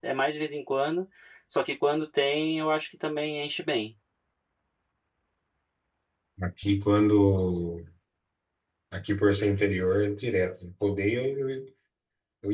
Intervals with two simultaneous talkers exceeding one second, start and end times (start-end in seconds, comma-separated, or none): none